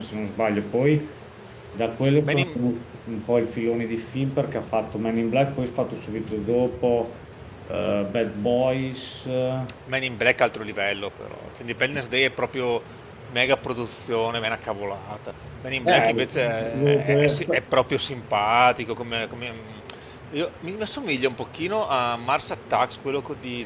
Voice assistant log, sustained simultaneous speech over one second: present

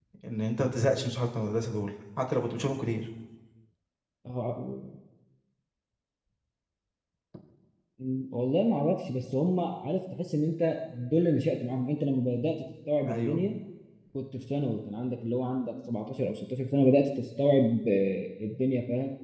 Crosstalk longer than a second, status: none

